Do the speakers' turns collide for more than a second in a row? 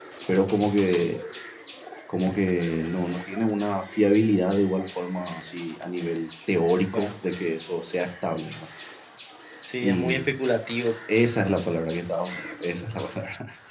No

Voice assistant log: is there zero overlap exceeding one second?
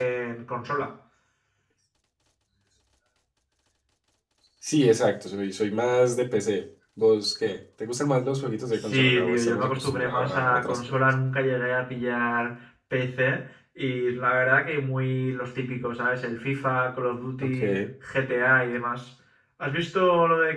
No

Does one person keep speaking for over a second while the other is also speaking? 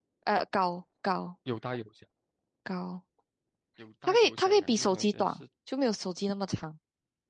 Yes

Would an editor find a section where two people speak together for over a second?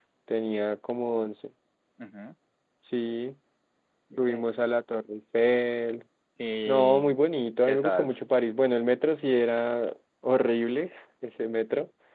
No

